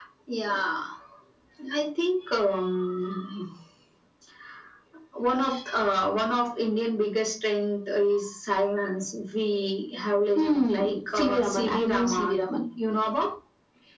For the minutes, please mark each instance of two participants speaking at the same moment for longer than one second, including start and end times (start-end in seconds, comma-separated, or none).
10.3-12.4